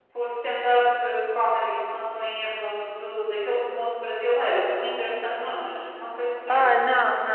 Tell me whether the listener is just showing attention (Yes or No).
No